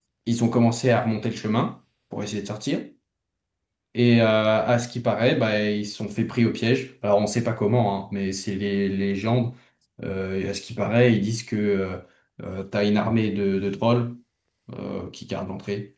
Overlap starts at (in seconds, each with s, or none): none